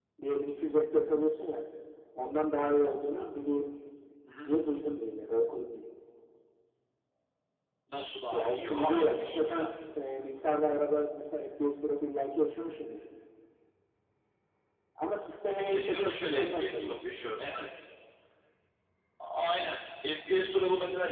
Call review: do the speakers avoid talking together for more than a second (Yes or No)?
No